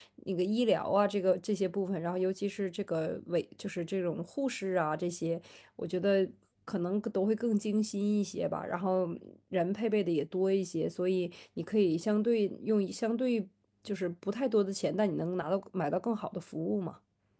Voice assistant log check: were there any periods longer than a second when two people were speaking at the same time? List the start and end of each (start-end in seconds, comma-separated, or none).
none